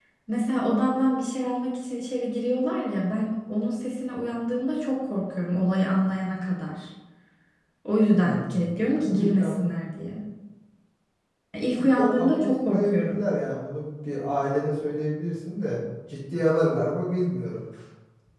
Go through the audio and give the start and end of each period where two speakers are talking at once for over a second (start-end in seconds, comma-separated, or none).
8.1-9.5, 11.8-13.2